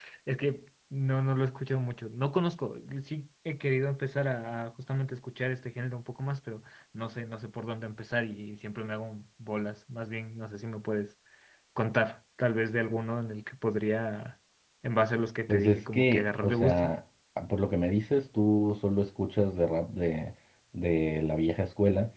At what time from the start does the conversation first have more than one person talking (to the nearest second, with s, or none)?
15 s